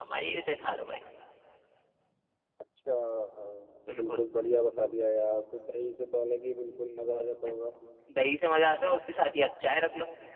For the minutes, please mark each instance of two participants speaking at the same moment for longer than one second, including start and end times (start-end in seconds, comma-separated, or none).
none